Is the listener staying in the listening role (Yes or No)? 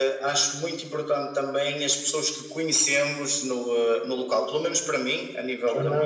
Yes